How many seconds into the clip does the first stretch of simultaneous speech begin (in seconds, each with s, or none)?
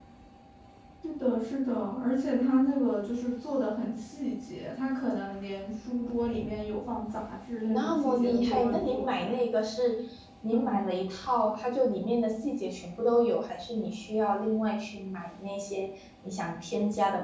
7.7 s